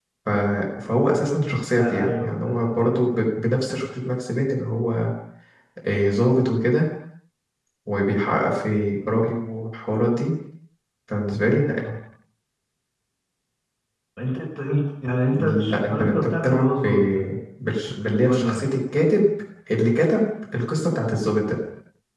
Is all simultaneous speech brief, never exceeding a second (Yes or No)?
No